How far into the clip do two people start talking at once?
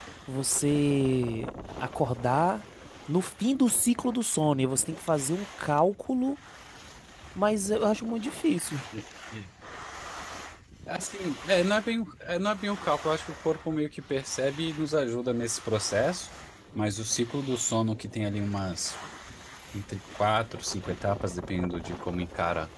none

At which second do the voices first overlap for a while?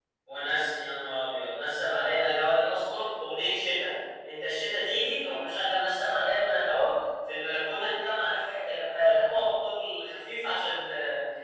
none

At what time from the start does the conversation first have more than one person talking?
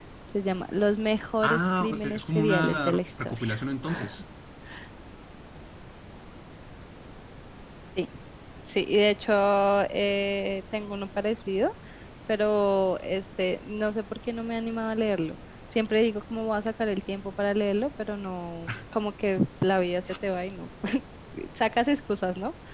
1 s

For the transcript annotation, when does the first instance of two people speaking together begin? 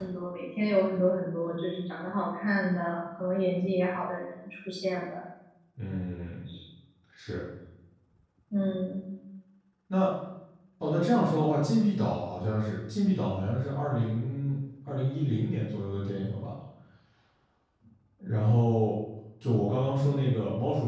none

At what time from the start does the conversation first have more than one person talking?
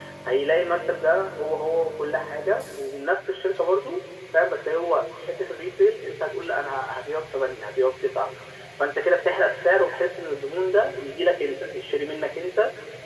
none

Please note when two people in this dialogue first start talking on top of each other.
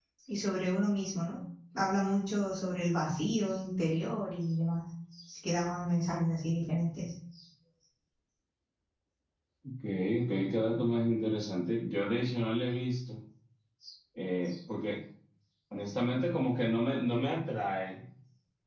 none

